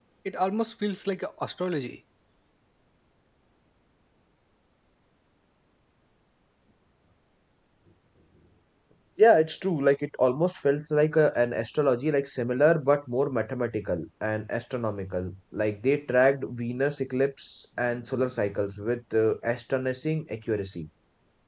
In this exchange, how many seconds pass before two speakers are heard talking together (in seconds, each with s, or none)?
none